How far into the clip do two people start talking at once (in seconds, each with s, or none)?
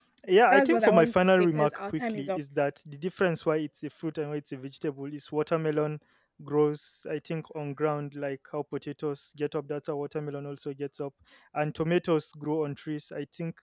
0.5 s